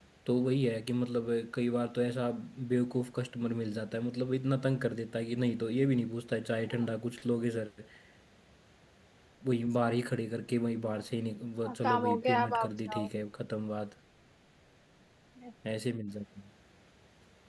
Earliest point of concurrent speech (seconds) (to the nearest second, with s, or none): 12 s